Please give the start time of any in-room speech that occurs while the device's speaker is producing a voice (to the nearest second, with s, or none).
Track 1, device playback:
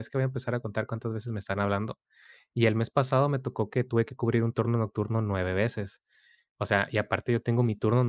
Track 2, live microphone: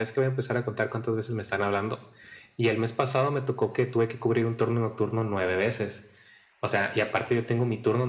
none